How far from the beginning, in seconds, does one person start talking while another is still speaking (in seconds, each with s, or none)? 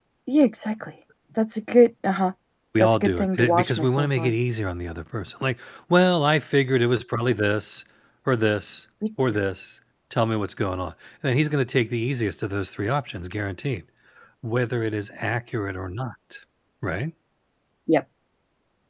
2.8 s